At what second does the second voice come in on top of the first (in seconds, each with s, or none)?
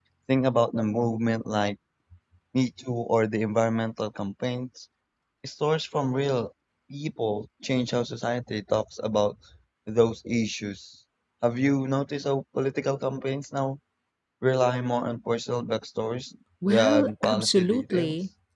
16.6 s